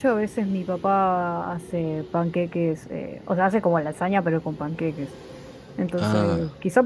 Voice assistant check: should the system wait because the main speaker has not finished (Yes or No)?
Yes